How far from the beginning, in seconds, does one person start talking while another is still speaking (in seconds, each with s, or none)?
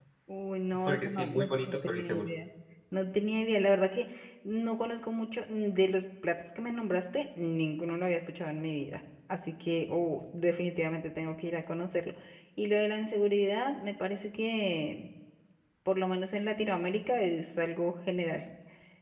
0.9 s